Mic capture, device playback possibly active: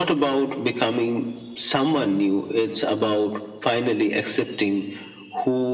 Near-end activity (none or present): none